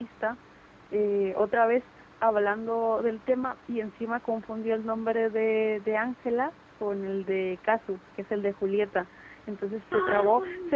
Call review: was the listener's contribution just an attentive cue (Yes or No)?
Yes